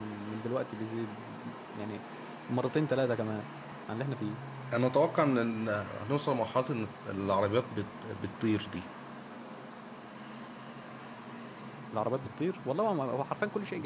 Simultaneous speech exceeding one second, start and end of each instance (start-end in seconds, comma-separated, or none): none